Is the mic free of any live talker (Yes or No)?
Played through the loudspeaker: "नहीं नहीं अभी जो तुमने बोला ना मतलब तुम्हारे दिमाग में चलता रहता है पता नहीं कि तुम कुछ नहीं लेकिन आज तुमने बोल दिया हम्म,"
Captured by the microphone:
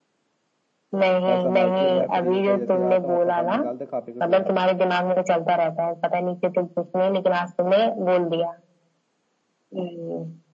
No